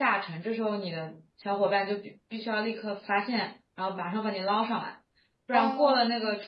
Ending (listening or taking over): listening